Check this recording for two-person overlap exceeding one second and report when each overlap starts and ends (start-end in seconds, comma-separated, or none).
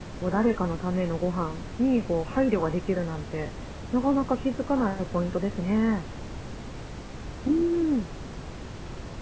none